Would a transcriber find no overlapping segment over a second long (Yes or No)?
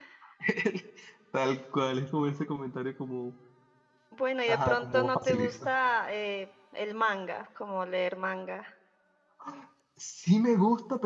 No